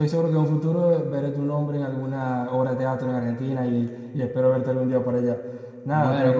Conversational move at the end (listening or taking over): taking over